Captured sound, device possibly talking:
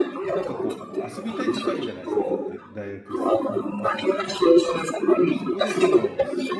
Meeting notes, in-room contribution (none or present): present